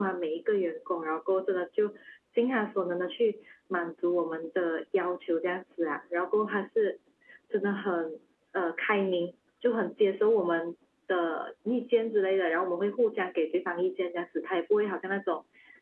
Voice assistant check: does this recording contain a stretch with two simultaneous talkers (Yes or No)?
No